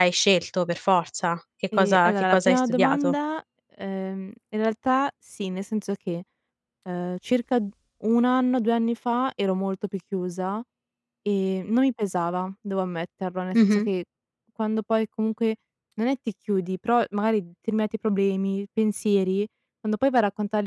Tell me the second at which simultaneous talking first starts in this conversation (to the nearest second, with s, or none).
2 s